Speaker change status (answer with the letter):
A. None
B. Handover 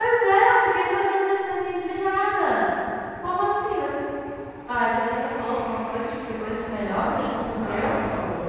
B